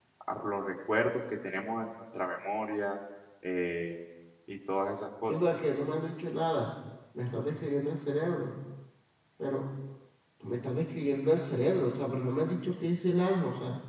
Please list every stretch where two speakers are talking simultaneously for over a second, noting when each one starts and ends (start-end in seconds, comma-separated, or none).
none